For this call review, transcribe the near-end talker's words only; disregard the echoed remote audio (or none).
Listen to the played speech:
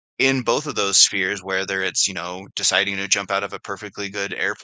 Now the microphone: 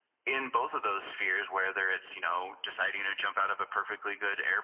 none